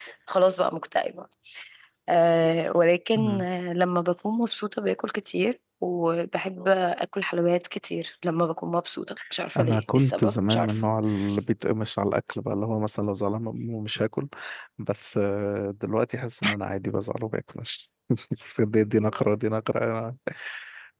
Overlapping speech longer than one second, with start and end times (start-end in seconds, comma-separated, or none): 9.6-10.8